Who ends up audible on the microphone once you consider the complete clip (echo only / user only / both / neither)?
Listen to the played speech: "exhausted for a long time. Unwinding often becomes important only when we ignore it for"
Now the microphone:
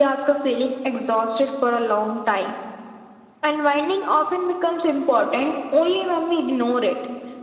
echo only